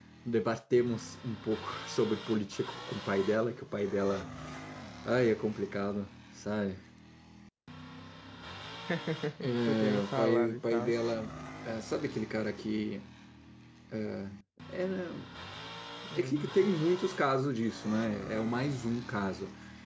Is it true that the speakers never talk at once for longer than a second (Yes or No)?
No